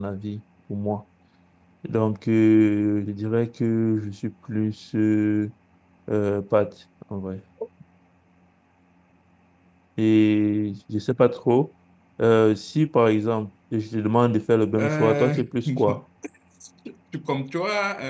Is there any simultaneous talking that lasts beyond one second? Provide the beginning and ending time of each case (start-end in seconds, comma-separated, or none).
14.8-16.0